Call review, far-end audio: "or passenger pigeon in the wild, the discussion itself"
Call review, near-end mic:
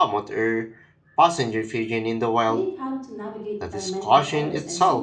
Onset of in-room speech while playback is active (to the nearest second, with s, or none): 2 s